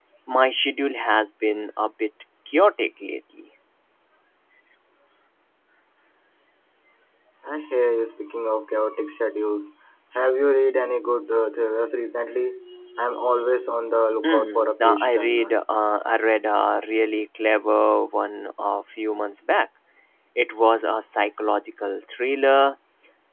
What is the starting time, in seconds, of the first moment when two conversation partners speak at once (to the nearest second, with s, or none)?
14 s